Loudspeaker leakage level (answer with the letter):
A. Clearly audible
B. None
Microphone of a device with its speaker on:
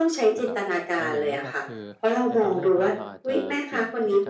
A